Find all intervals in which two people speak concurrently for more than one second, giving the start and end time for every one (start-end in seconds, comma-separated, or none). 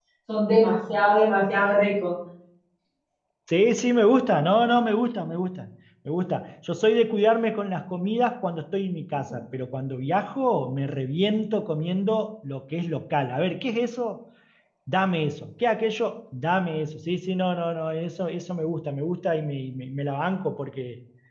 none